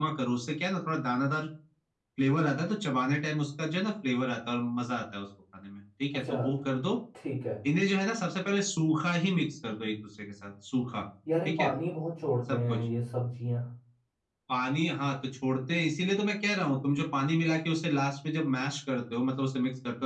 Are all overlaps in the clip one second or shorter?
Yes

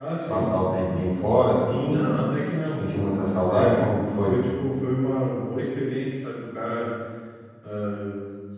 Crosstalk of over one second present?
Yes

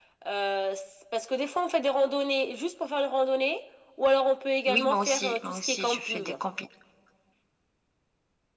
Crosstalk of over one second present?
Yes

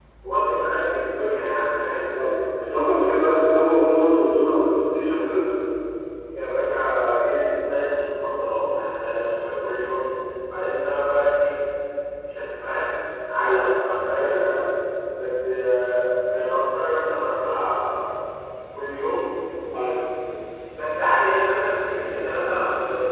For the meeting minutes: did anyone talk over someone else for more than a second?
No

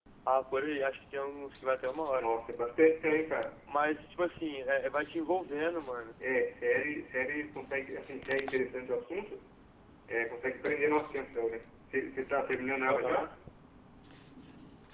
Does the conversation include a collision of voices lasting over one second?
No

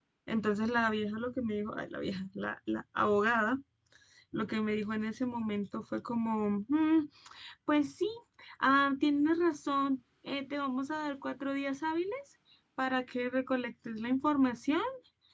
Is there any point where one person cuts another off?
No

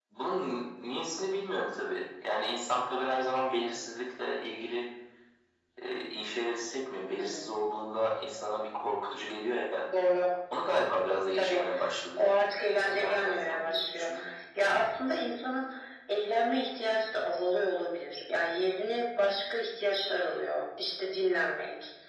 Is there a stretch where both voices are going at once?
Yes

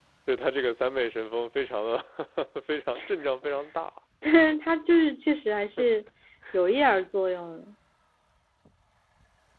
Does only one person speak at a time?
Yes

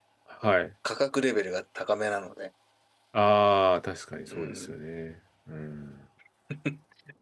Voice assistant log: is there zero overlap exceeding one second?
Yes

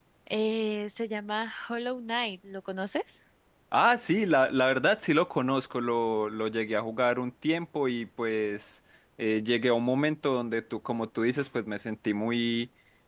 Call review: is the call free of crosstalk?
Yes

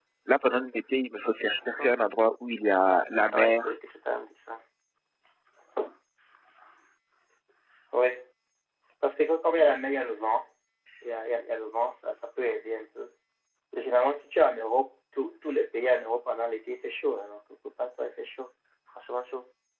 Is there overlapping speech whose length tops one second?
No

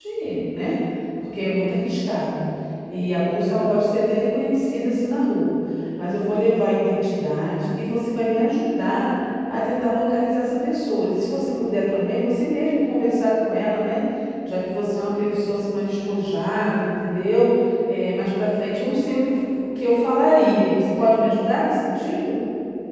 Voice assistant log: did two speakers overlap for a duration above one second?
No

